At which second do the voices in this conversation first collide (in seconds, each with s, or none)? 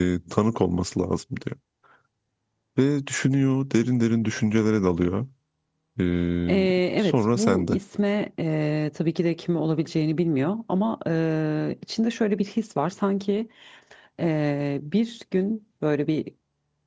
6.5 s